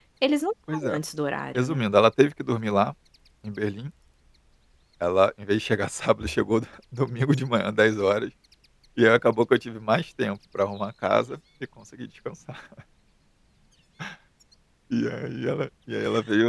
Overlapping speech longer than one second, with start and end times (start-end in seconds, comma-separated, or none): none